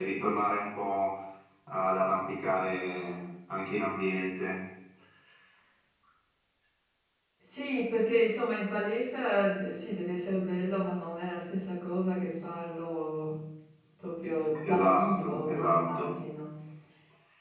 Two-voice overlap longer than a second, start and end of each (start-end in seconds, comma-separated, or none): 14.6-16.1